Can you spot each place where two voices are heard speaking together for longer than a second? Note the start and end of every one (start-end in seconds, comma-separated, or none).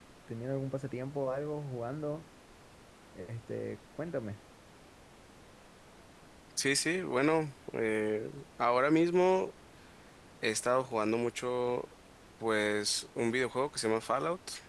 none